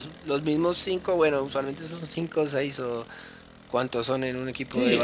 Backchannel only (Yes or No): No